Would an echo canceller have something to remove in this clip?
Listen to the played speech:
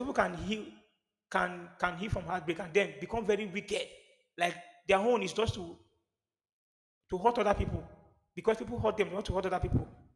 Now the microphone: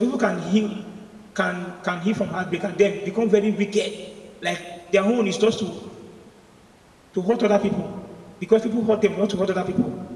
Yes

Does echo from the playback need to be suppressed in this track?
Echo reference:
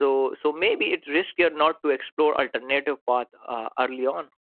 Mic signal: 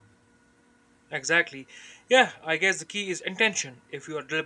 No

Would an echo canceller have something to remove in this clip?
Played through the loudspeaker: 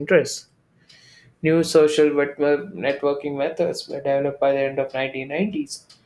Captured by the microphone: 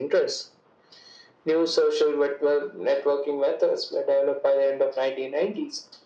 Yes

